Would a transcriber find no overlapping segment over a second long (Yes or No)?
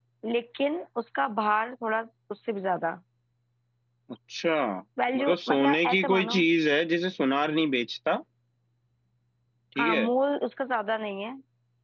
No